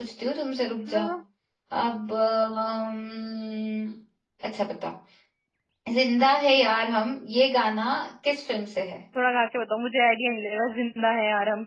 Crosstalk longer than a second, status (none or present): none